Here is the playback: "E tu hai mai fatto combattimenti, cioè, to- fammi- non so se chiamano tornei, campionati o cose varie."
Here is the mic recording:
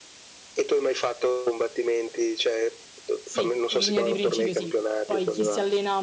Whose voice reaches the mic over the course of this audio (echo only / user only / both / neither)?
both